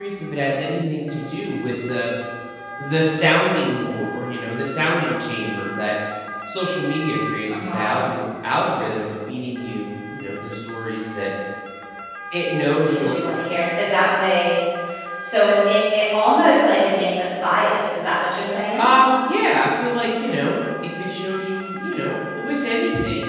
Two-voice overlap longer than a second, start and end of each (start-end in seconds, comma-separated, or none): none